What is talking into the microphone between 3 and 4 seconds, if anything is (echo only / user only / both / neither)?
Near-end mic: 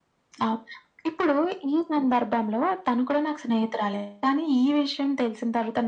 echo only